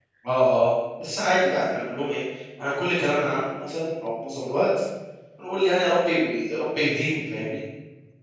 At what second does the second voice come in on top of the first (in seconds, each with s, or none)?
none